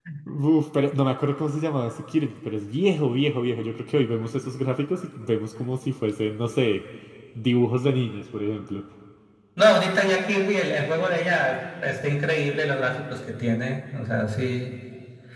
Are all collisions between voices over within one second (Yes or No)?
Yes